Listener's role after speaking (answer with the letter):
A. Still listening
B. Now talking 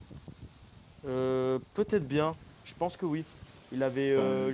A